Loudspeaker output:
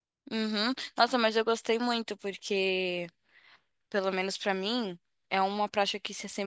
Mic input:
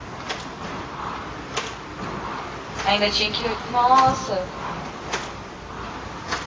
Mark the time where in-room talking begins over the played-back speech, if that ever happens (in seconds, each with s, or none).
2.8 s